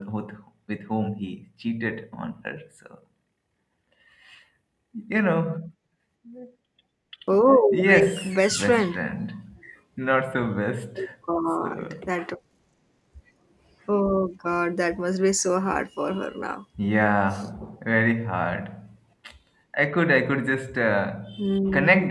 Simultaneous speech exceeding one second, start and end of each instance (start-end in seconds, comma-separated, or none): 7.7-9.0